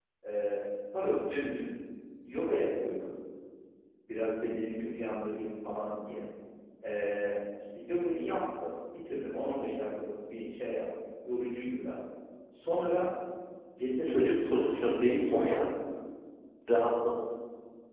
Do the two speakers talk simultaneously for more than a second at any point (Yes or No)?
Yes